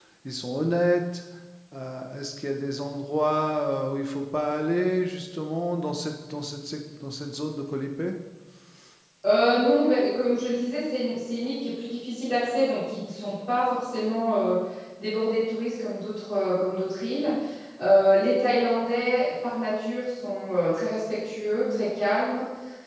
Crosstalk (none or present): none